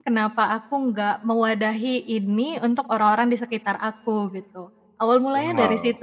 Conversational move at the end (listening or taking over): taking over